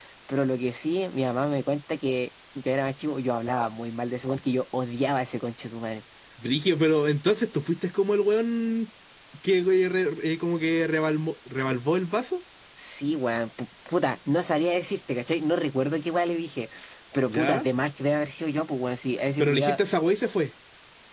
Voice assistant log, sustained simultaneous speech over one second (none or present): none